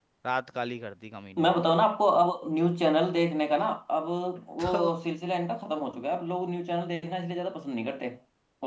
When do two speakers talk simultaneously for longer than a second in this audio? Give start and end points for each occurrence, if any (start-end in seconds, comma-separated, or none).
none